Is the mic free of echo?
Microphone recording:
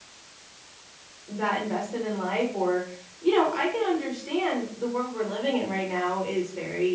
Yes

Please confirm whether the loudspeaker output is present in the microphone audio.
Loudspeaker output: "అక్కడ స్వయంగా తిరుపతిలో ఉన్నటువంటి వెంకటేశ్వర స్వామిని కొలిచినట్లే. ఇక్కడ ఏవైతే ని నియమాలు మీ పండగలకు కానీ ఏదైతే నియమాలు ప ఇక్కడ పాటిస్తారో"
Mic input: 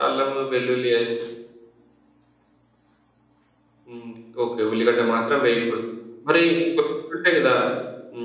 No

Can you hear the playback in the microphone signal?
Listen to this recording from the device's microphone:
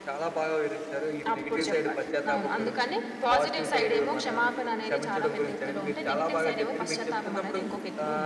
Yes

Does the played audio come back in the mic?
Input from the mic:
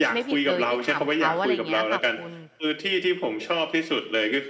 Yes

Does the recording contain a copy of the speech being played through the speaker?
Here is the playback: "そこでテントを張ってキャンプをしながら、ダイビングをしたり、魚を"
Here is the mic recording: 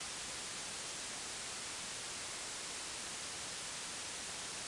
No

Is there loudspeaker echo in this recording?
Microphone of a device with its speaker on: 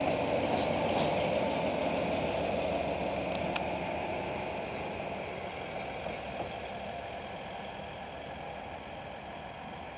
No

